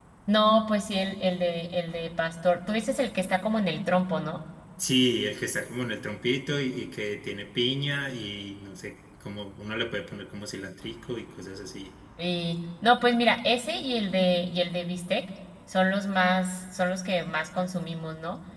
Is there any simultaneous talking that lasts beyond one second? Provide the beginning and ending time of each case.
none

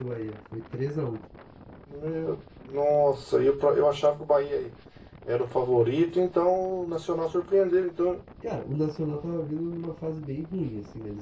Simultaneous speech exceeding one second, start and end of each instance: none

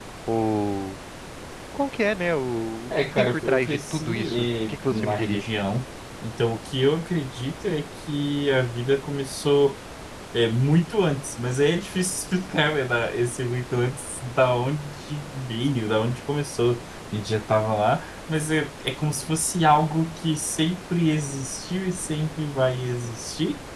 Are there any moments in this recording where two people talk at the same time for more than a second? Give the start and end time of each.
2.9-5.5

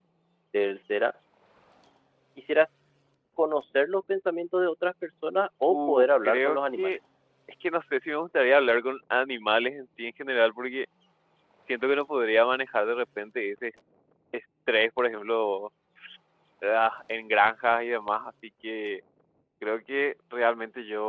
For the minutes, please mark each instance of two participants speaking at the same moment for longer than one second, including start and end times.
5.7-7.0

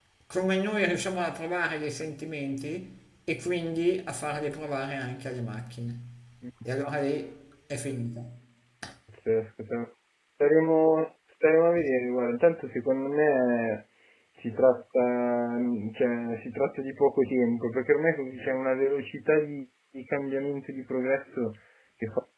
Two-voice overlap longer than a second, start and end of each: none

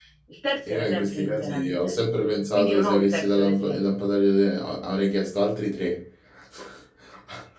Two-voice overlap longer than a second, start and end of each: 0.7-1.9, 2.5-3.8

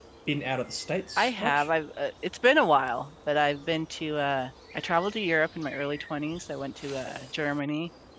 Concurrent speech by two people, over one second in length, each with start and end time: none

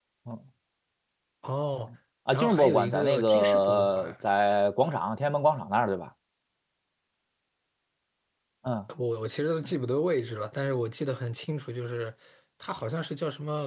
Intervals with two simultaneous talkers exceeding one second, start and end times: 2.3-4.1

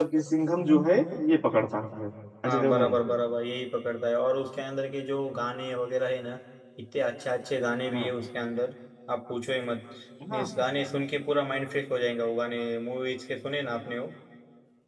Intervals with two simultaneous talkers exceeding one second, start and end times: none

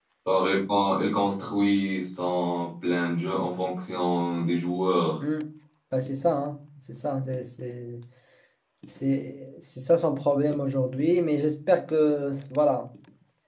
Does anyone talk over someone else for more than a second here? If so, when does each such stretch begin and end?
none

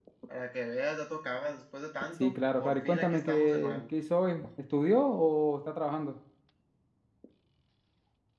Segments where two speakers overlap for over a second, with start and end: 2.2-3.8

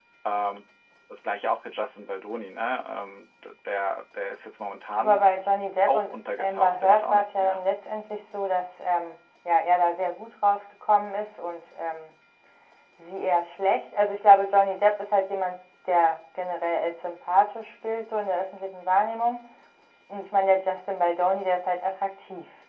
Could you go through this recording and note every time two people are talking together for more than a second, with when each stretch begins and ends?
5.9-7.6

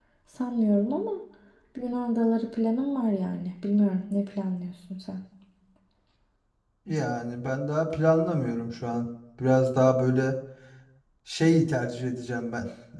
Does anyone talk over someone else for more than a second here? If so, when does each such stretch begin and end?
none

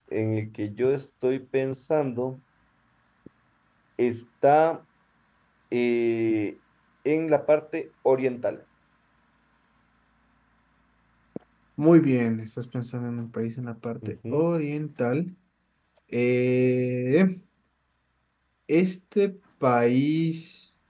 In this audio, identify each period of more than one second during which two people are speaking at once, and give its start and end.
none

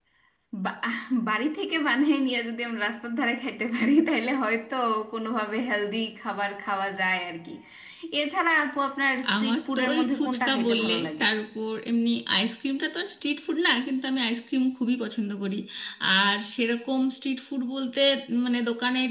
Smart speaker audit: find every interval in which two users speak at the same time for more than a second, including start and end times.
9.3-11.2

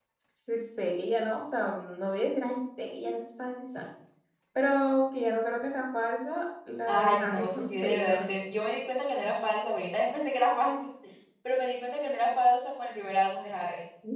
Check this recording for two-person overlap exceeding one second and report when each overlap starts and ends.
6.9-8.2

